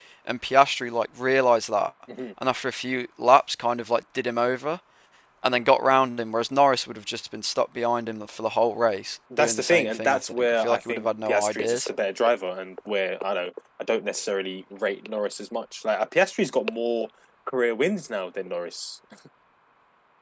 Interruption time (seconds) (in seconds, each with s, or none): 9.3 s